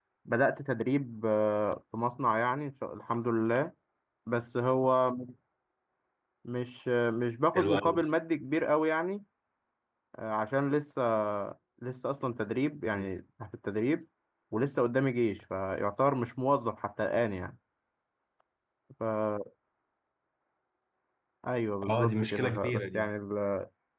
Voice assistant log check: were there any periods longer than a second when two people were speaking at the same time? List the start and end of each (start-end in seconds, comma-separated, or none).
21.9-23.1